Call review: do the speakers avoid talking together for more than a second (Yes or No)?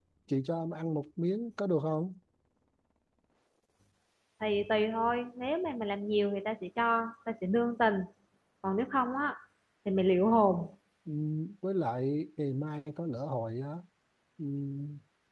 Yes